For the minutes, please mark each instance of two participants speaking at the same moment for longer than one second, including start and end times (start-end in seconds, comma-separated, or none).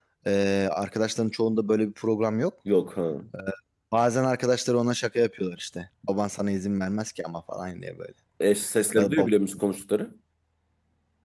none